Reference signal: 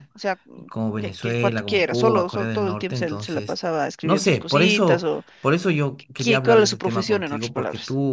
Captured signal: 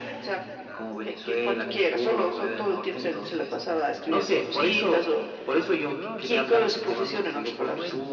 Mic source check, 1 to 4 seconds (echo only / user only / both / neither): both